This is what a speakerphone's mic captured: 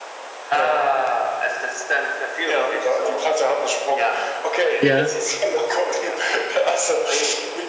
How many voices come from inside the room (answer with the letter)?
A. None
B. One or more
B